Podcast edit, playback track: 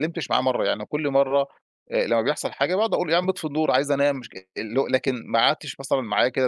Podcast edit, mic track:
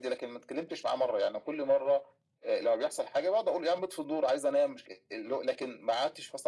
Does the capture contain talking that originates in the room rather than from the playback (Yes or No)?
No